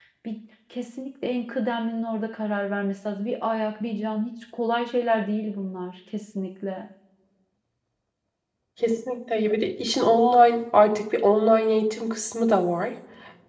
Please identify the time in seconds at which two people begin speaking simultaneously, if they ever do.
none

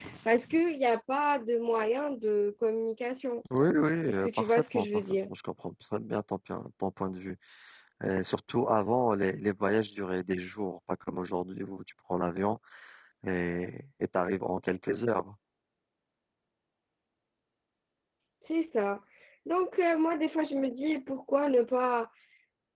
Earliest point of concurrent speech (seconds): 4.1 s

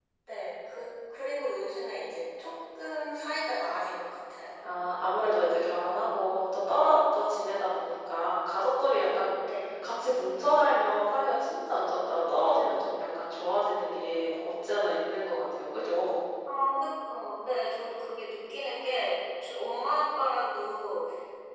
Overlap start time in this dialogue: none

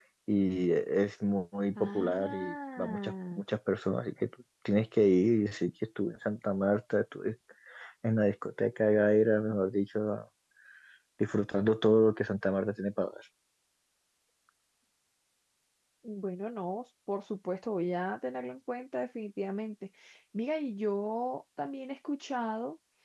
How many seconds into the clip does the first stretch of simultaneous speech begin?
1.8 s

